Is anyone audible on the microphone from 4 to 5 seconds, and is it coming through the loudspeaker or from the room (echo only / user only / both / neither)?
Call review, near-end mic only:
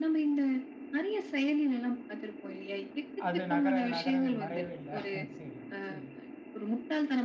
both